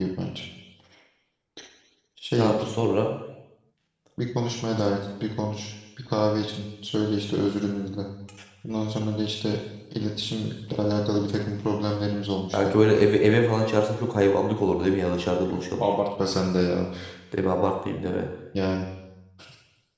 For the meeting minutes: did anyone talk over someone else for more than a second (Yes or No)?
No